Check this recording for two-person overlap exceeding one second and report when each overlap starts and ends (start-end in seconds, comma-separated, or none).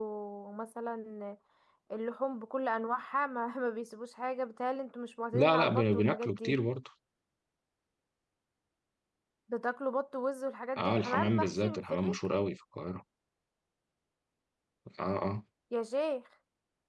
5.3-6.6, 10.8-12.2